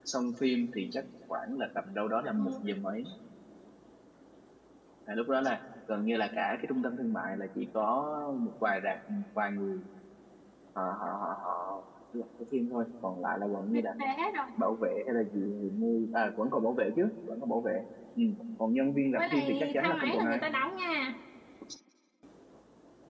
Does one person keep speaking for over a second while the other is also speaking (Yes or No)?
Yes